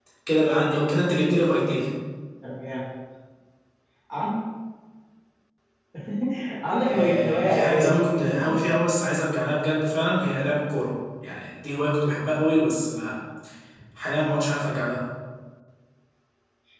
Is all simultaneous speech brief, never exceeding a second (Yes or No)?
No